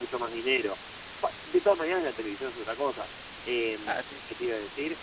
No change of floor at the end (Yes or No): Yes